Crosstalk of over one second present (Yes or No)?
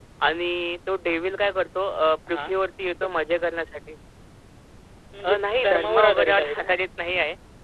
Yes